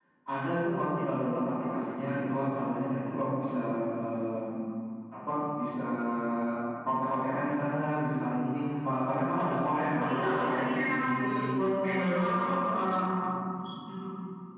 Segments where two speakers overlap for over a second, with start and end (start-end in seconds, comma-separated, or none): 9.9-11.5